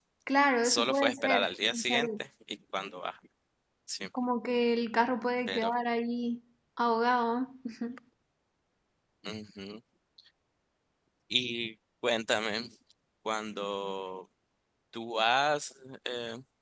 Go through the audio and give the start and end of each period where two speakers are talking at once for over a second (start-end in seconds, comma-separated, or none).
0.6-2.1